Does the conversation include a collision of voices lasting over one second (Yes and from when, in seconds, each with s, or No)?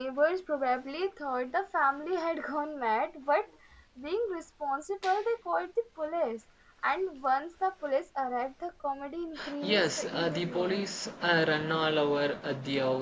Yes, from 9.6 s